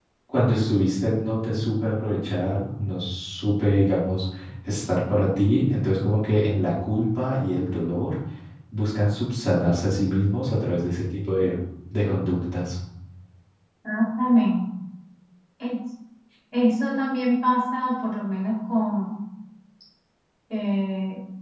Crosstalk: none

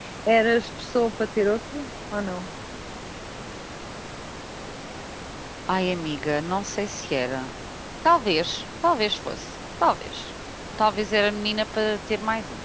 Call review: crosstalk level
none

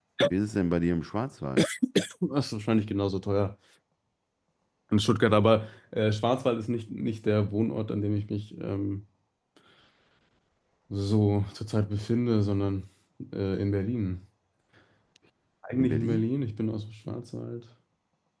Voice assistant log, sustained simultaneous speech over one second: none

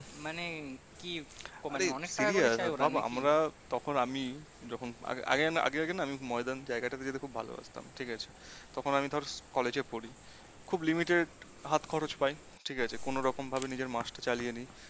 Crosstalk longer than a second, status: present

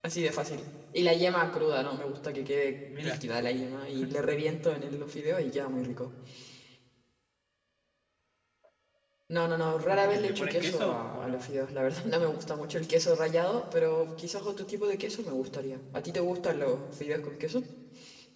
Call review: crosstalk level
present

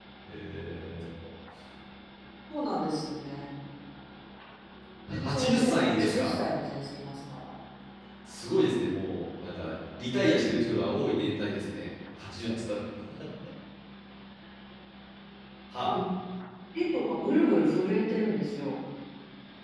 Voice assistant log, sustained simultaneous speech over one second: present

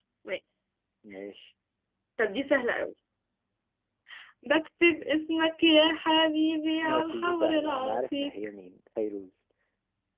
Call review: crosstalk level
present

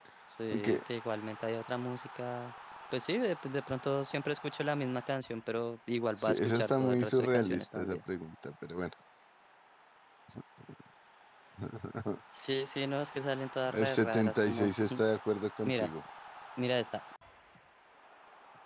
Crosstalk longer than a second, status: present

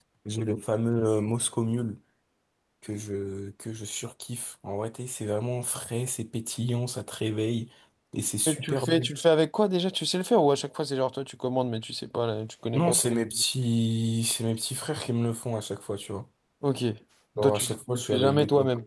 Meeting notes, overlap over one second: present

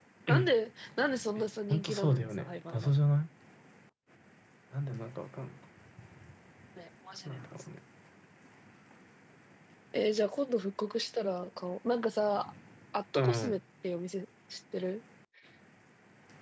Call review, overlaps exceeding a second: present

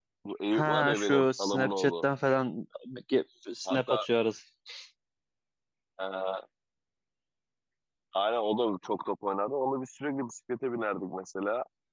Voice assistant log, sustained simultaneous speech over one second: present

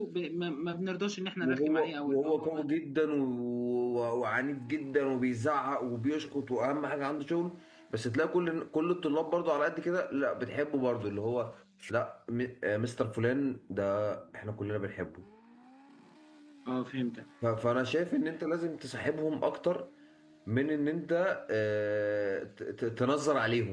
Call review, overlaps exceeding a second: present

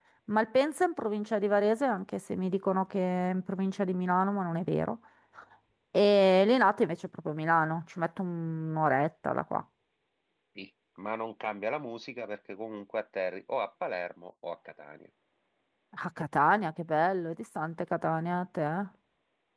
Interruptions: none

